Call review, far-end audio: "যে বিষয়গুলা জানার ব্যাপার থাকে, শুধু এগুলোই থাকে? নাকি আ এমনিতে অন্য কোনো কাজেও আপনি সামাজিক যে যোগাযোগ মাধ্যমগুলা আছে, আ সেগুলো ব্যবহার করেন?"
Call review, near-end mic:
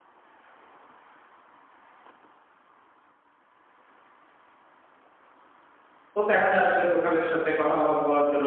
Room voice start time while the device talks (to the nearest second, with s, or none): 6 s